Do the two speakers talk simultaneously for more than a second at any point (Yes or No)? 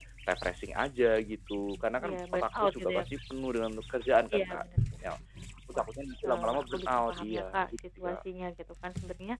Yes